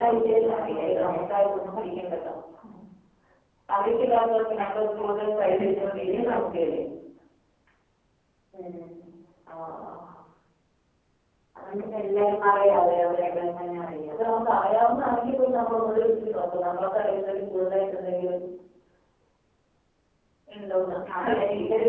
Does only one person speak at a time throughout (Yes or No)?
No